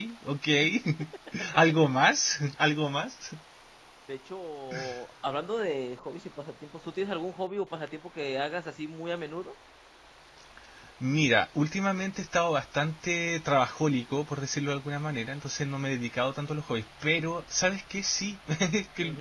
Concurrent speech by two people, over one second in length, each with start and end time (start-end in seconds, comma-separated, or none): none